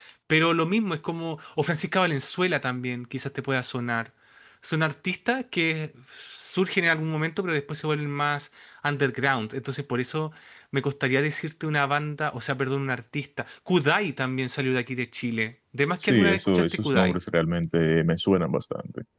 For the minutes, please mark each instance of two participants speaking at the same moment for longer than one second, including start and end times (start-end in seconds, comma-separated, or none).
15.9-17.2